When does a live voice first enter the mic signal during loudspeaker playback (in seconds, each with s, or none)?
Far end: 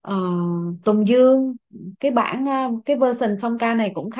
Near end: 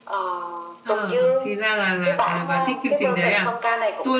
0.8 s